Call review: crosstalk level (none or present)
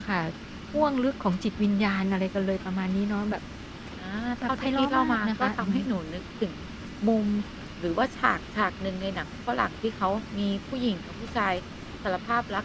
present